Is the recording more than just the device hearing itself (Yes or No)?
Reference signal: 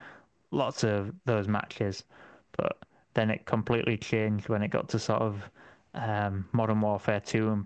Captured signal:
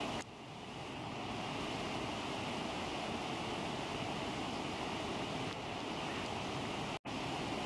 No